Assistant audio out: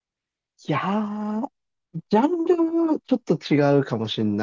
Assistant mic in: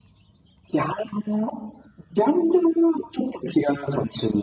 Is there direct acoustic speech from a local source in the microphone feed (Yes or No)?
No